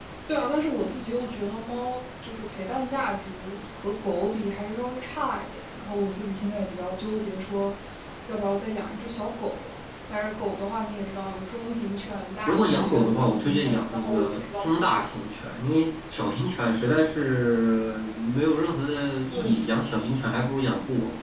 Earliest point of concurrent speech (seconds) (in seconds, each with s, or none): 12.5 s